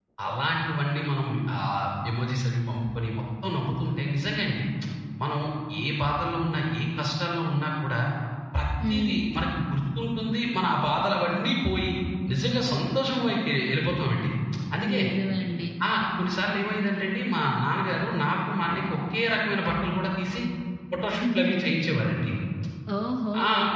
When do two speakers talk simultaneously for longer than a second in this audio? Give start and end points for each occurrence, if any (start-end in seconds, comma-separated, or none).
none